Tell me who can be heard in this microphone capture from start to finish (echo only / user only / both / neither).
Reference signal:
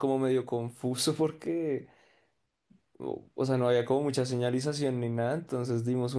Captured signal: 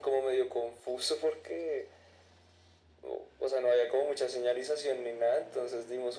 echo only